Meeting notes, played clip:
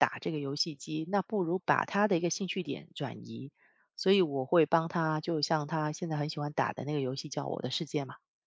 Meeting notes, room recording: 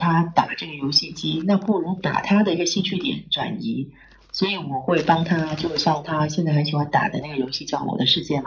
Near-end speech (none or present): none